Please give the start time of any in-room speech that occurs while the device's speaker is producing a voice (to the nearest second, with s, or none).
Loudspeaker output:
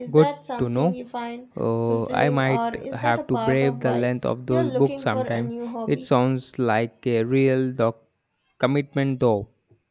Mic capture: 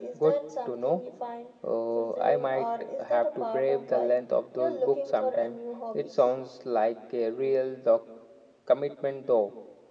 none